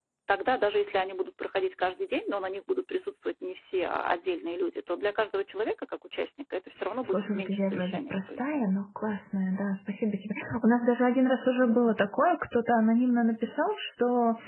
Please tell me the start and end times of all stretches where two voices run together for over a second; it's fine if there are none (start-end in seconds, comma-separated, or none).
7.0-8.5